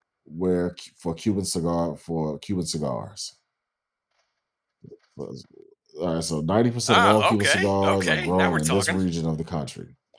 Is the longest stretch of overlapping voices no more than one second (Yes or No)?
No